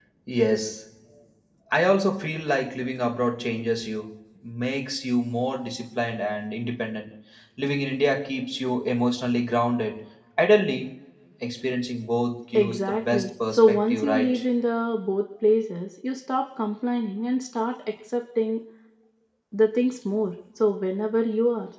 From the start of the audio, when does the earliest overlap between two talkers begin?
12.5 s

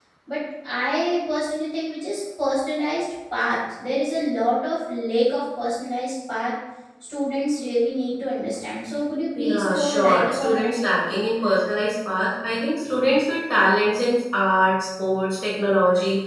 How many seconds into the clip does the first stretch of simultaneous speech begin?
9.3 s

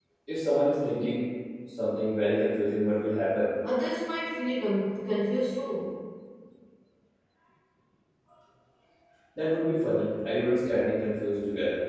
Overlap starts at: none

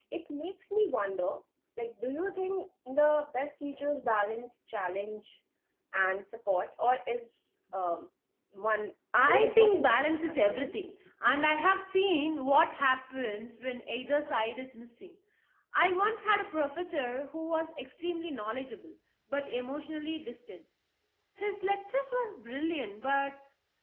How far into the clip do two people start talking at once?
9.2 s

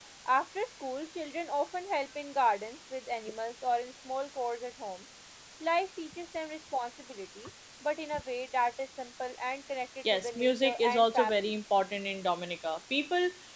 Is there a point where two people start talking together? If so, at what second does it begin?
10.0 s

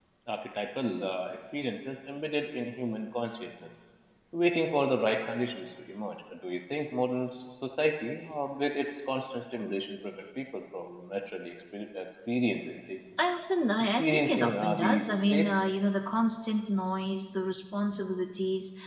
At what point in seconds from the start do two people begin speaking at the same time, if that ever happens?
14.0 s

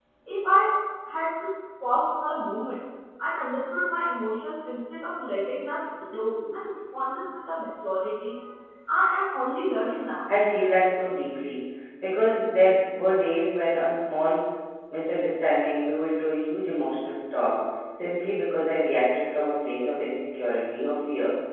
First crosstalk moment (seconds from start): none

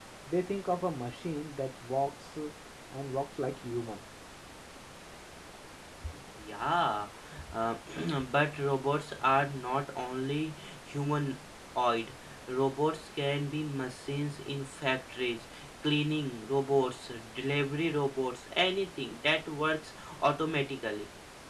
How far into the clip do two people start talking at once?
none

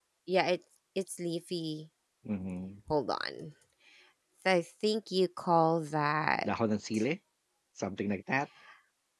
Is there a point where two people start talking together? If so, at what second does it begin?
none

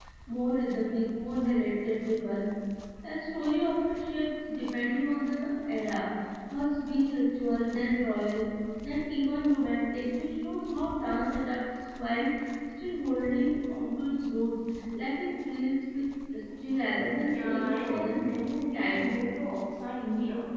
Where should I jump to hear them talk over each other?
17.3 s

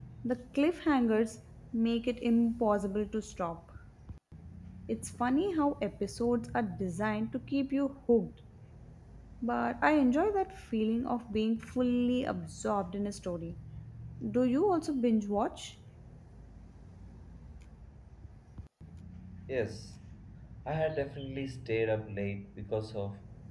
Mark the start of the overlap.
none

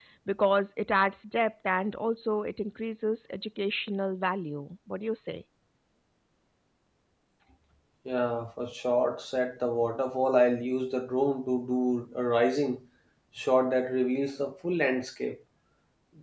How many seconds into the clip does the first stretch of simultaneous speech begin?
none

